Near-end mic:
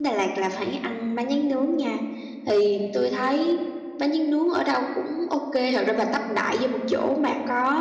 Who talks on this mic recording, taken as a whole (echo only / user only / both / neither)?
user only